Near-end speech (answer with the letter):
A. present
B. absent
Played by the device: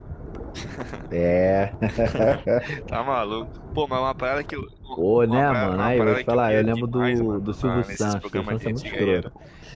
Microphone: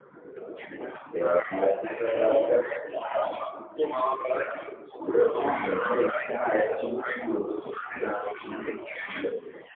A